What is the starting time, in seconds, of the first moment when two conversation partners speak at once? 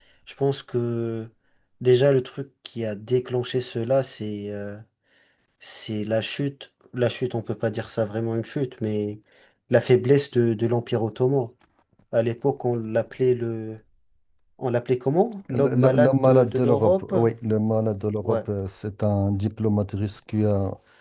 15.5 s

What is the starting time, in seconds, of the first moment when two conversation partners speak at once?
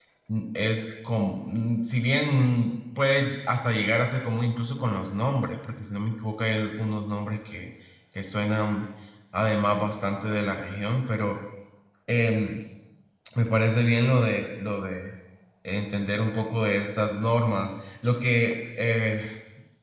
none

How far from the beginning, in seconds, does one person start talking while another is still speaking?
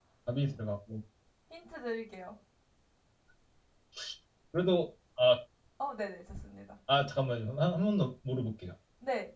none

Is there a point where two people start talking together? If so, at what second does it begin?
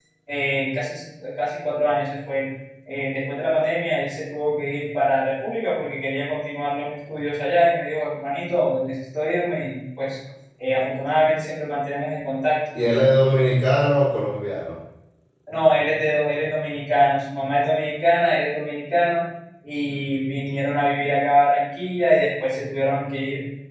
none

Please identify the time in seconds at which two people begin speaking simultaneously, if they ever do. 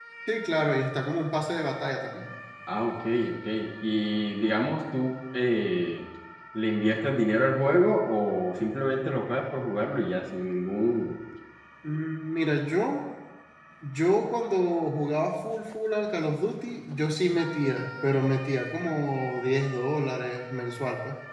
none

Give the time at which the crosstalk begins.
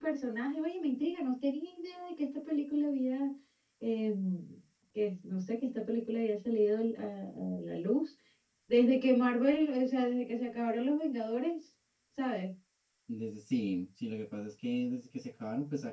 none

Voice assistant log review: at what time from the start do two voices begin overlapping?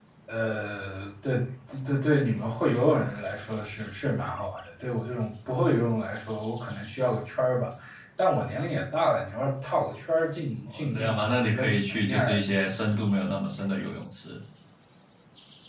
10.7 s

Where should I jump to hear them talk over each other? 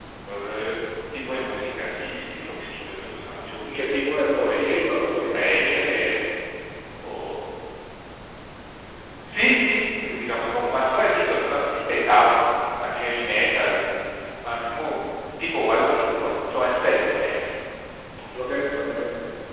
4.4 s

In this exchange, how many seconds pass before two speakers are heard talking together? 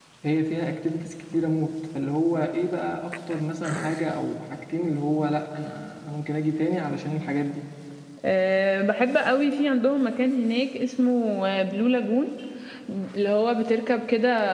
none

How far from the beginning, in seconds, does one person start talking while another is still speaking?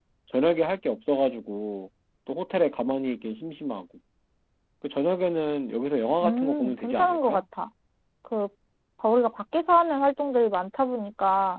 6.2 s

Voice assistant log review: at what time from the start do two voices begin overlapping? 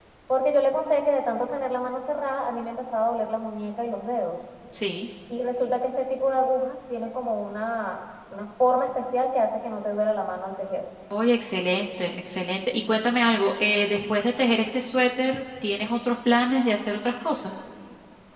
none

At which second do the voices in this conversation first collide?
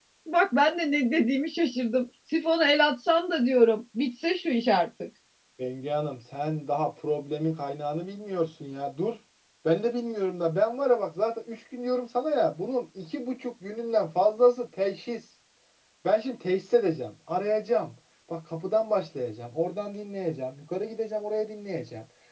none

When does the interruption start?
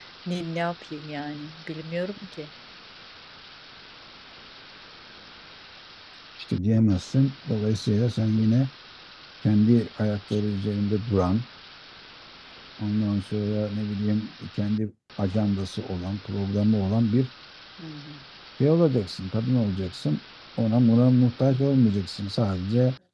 none

